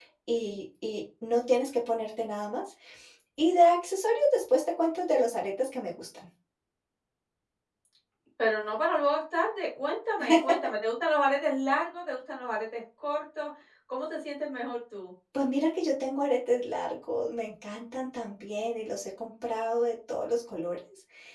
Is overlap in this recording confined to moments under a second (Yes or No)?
Yes